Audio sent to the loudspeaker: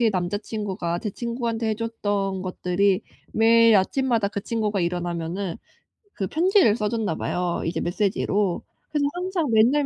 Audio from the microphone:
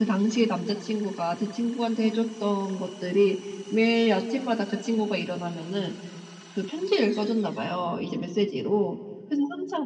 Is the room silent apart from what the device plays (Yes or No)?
Yes